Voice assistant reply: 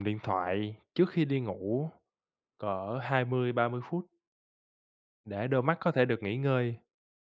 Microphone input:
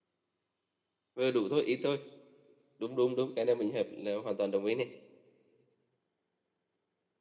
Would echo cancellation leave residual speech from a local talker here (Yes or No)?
Yes